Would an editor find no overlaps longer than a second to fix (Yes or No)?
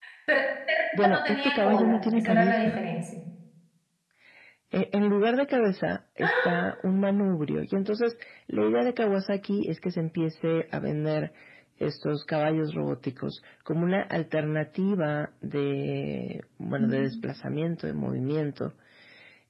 No